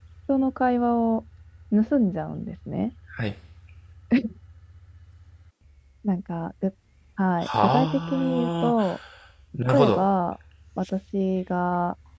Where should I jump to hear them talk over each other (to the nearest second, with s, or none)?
7 s